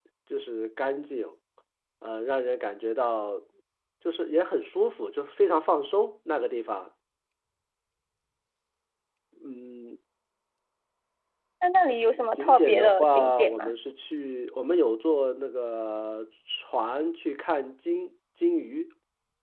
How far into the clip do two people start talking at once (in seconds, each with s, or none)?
12.4 s